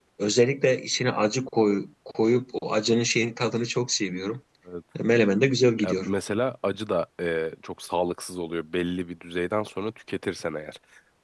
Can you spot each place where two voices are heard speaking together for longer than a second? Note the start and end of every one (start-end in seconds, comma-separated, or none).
none